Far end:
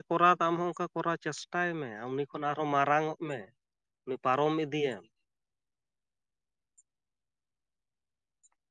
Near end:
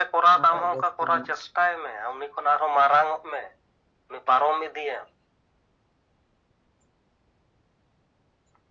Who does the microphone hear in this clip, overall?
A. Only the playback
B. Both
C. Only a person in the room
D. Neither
B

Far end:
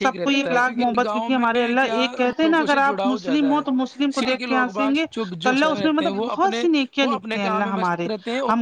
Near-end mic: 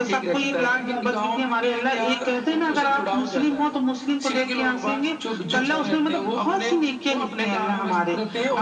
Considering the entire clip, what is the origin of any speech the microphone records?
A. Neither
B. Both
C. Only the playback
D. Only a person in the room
C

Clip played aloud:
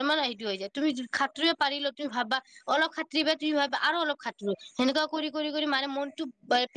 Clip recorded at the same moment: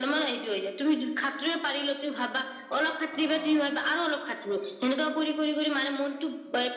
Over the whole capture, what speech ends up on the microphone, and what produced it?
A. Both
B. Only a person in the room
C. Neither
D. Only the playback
A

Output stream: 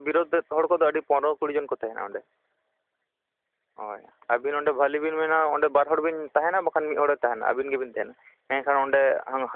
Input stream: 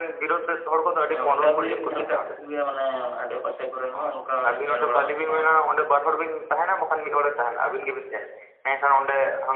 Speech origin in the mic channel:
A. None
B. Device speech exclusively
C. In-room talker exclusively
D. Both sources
D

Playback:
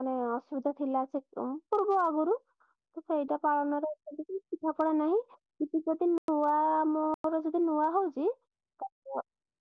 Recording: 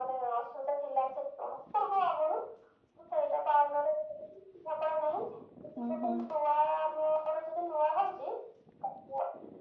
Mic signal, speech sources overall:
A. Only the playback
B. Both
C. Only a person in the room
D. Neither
B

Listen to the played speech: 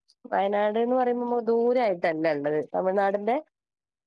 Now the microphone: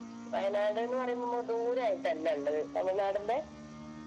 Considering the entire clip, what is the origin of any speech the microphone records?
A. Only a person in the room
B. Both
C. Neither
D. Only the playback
D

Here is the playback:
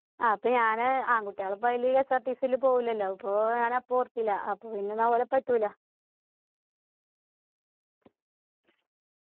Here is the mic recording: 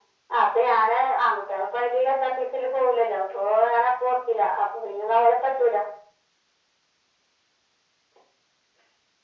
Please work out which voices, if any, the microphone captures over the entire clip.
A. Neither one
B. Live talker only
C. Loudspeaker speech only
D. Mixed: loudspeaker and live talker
C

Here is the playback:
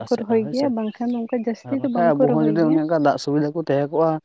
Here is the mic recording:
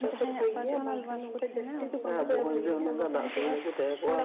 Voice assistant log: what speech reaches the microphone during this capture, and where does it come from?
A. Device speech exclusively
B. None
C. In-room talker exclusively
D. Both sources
D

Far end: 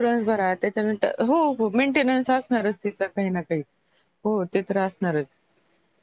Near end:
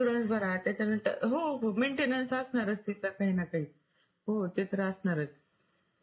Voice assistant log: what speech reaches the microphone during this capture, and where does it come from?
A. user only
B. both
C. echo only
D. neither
C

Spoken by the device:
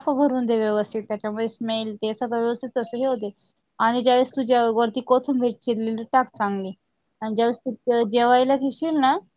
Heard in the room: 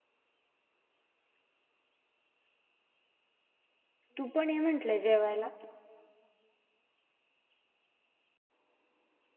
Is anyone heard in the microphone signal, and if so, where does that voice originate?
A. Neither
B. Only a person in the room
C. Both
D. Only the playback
B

